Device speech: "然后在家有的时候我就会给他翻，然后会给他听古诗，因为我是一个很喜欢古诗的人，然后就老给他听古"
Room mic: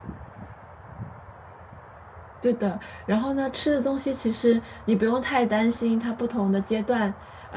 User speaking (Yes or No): Yes